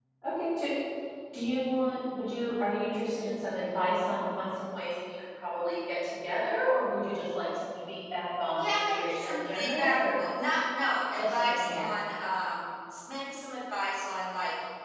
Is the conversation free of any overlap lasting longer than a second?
No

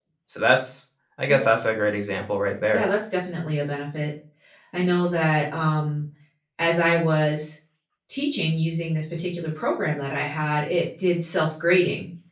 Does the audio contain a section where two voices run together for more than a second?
No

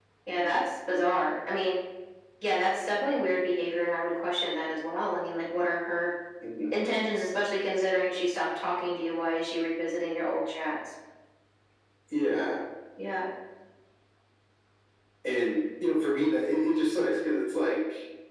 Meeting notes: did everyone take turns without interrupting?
Yes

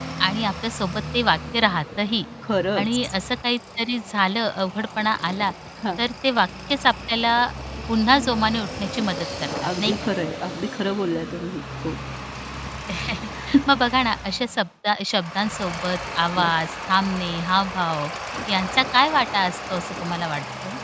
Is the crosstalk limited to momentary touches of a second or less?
Yes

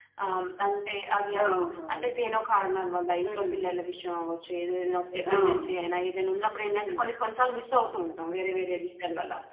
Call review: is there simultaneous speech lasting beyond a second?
No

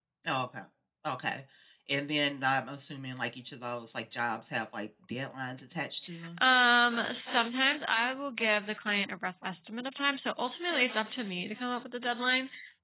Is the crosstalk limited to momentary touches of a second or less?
Yes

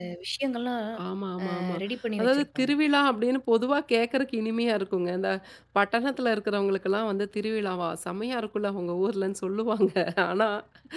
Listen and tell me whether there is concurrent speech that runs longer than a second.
No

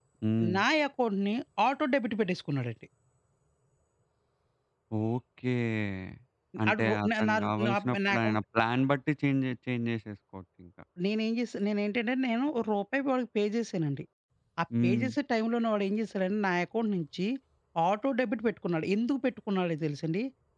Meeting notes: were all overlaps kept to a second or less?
No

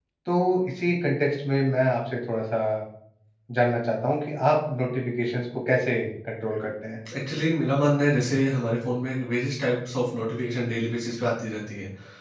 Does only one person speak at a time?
Yes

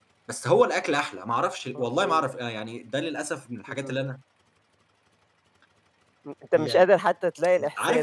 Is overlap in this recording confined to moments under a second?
Yes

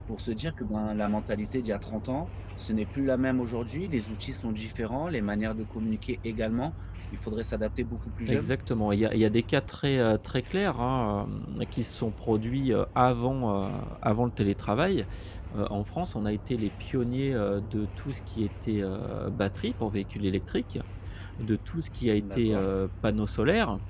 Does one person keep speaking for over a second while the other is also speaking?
No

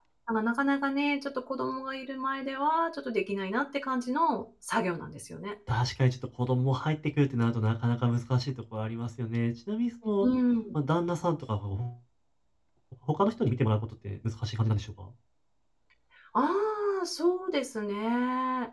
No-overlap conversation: Yes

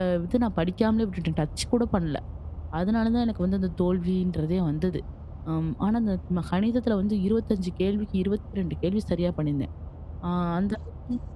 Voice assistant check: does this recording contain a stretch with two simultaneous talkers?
No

